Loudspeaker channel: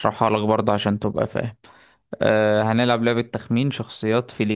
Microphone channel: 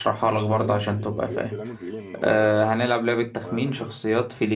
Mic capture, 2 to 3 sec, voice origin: both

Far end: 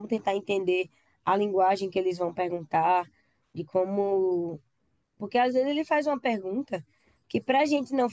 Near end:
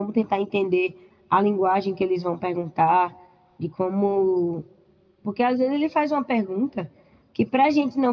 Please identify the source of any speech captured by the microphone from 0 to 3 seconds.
echo only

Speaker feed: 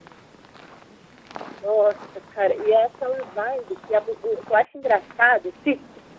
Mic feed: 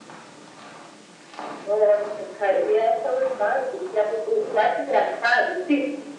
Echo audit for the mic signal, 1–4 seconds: echo only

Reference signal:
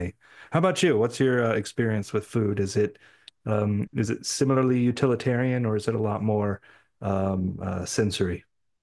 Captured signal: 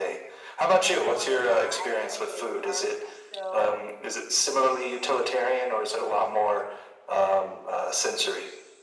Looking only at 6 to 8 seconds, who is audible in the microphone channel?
echo only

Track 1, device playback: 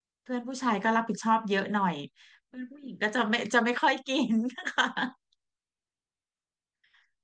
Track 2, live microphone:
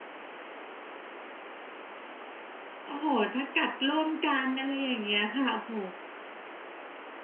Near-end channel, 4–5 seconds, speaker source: user only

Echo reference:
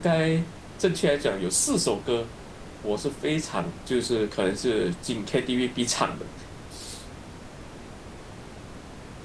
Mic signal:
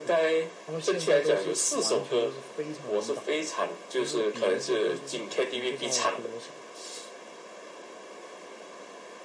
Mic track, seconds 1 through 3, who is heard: both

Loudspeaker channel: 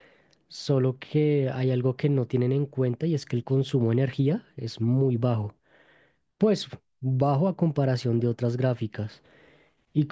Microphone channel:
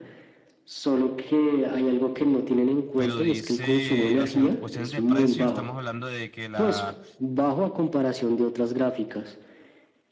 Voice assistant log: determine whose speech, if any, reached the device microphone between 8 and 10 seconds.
echo only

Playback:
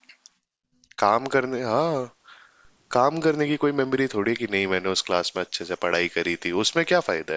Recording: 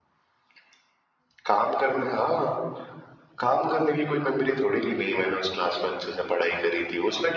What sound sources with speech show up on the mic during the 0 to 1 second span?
neither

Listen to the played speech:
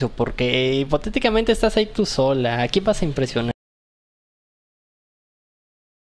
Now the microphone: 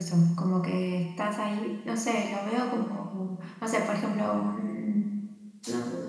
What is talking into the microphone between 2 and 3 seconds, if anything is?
user only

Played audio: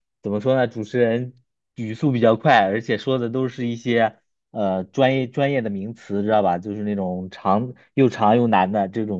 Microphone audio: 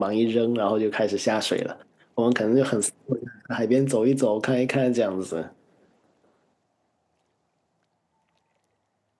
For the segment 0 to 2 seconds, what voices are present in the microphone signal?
user only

